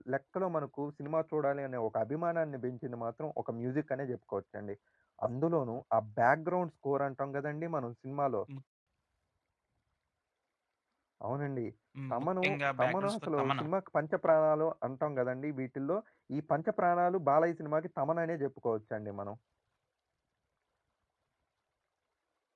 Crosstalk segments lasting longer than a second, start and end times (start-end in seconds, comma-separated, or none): 12.1-13.7